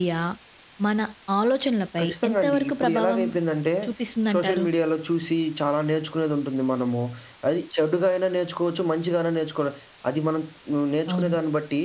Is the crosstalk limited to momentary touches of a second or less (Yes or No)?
No